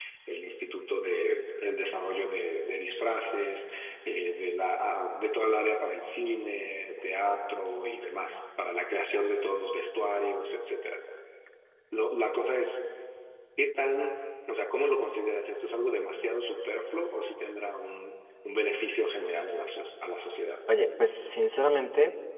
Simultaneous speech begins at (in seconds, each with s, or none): none